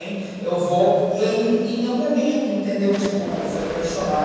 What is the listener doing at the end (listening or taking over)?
listening